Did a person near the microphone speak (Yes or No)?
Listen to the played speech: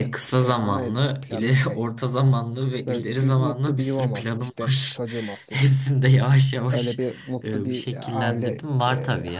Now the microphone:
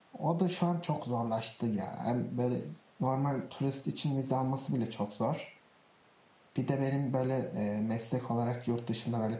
Yes